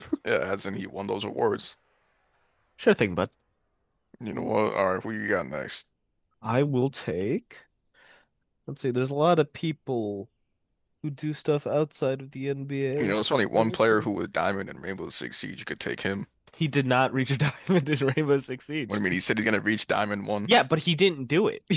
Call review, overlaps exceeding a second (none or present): none